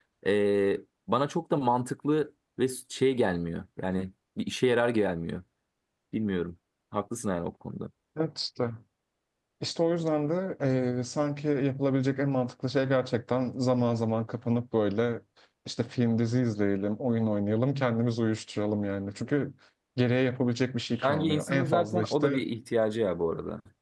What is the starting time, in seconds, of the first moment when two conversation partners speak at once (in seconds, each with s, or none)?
21.0 s